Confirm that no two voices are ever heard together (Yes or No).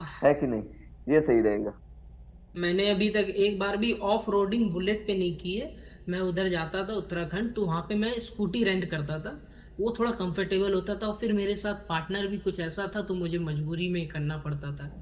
Yes